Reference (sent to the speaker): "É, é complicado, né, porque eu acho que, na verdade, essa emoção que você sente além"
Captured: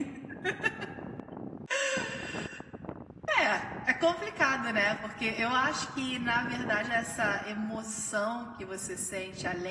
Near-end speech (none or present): none